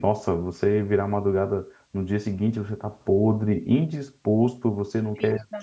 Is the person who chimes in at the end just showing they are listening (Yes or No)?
Yes